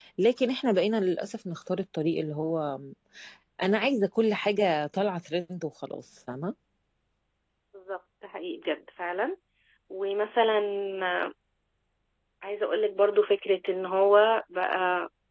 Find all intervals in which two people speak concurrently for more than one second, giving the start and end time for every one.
none

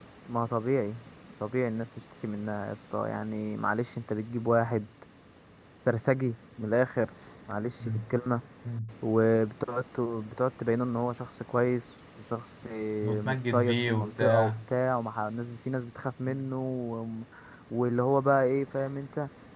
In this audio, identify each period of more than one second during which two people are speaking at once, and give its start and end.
13.2-14.5

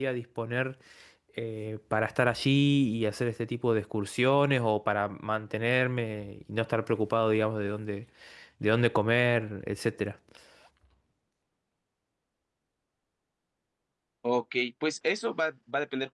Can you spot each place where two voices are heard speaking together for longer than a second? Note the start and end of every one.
none

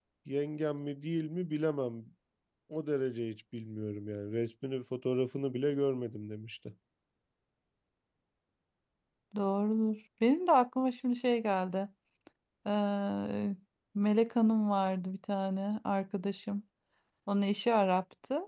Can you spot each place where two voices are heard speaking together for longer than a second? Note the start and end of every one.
none

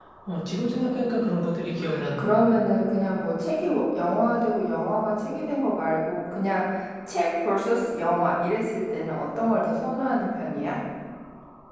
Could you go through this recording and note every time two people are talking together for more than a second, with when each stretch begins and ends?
none

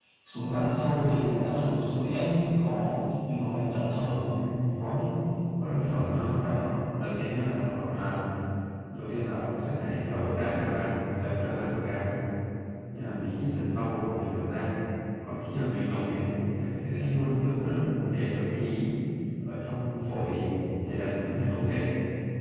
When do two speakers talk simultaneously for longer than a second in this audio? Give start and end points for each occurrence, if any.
none

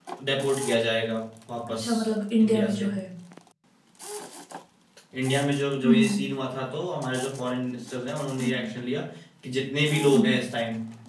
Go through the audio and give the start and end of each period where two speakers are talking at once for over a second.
none

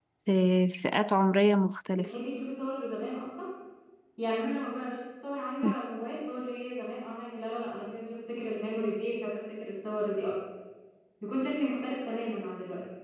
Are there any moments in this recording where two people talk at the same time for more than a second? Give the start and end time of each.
none

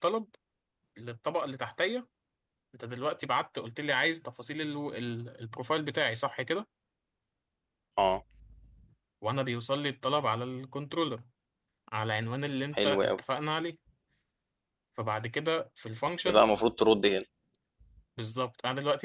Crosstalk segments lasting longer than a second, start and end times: none

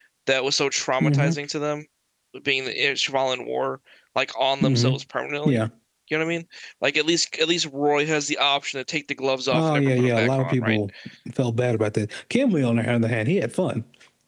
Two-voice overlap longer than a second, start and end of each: 9.5-10.8

